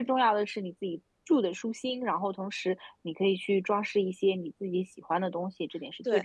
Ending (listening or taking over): taking over